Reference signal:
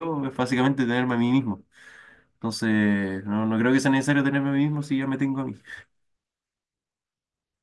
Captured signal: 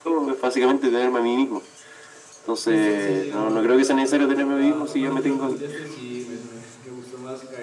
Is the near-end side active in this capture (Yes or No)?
Yes